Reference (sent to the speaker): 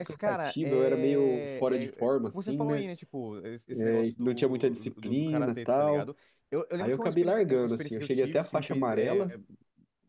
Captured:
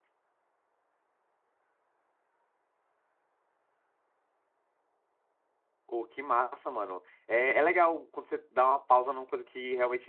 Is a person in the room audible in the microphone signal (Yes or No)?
Yes